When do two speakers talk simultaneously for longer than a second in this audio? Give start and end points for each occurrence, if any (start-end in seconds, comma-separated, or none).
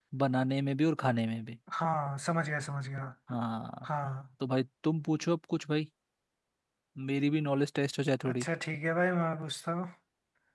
none